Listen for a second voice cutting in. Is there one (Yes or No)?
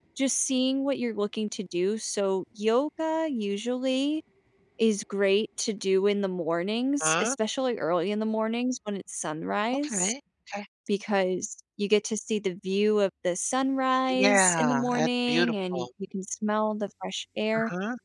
Yes